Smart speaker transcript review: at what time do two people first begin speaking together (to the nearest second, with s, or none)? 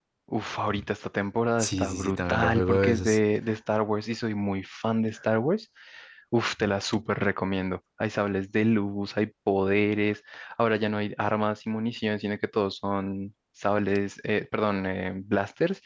2 s